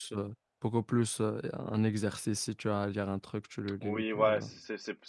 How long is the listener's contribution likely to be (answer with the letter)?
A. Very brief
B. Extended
B